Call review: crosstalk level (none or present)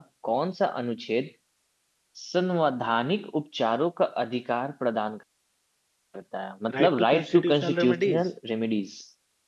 present